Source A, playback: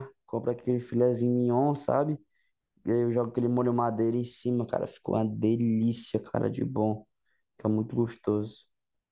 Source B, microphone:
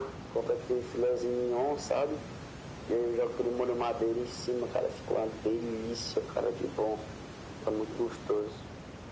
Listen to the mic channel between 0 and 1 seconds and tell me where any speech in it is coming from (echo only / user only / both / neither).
echo only